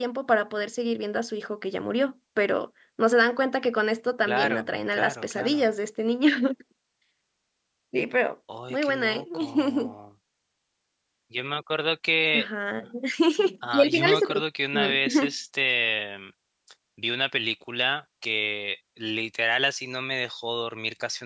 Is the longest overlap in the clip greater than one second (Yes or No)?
Yes